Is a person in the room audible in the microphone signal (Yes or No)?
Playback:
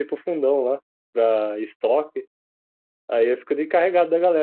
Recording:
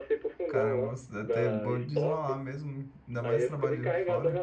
Yes